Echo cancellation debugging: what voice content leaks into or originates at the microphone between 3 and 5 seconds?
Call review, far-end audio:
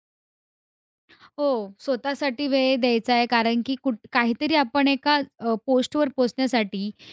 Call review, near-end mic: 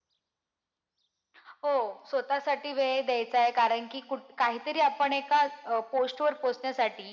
echo only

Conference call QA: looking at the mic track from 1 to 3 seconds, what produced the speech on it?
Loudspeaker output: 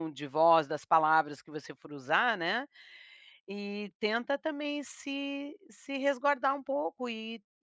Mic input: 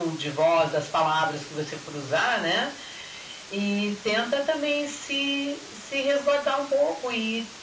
echo only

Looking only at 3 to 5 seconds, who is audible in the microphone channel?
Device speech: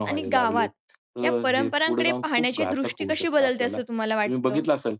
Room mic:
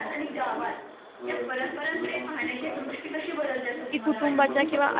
both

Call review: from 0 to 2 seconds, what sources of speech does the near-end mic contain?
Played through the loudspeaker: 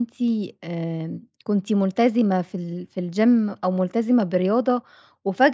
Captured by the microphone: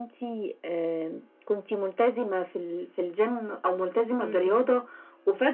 echo only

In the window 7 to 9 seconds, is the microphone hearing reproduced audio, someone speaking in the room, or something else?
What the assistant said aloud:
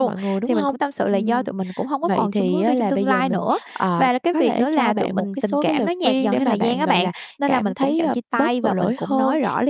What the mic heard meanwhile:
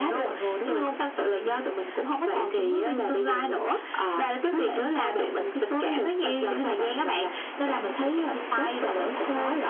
echo only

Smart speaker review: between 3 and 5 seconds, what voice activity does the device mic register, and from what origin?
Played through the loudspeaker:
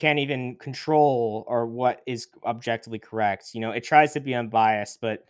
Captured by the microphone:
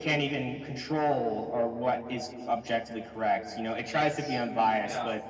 both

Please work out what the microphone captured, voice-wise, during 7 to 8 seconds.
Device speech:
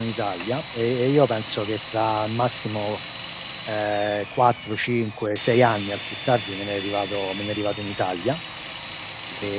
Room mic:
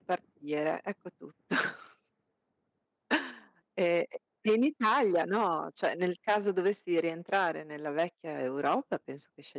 user only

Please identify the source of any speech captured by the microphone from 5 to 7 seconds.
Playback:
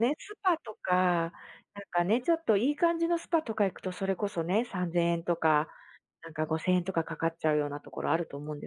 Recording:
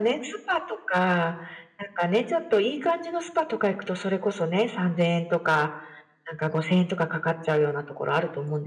echo only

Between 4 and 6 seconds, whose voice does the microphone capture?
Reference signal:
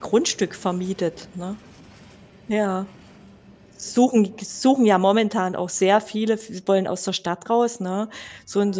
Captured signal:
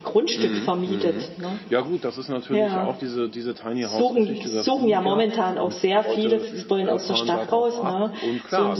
both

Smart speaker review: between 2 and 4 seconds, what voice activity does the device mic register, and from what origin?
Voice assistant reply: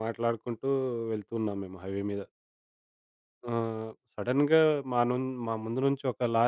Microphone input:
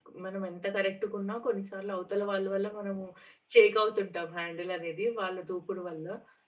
user only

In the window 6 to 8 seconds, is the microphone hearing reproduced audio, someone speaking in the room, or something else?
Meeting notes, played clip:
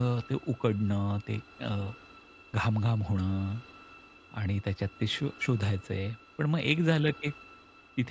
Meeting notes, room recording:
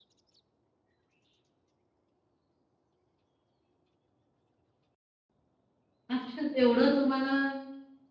user only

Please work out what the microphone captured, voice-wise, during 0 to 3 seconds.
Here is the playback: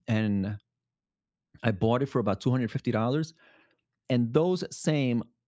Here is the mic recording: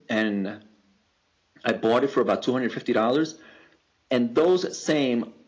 echo only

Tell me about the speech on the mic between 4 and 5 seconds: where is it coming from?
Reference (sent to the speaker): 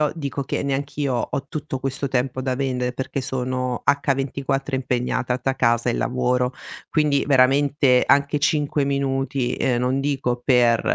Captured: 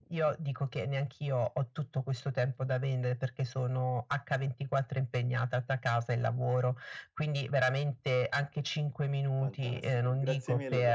echo only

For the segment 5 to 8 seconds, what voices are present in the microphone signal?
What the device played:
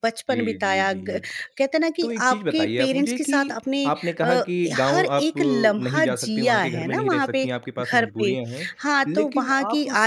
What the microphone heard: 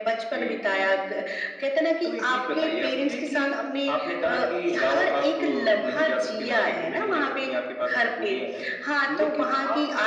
echo only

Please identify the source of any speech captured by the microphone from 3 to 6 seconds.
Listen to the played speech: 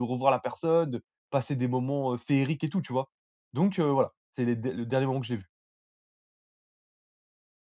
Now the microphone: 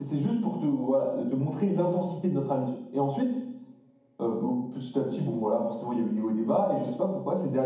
user only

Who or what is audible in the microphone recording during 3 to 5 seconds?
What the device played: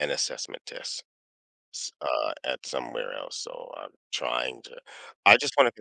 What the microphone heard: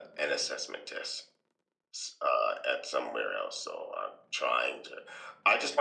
echo only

